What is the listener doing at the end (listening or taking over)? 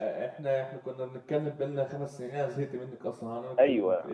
taking over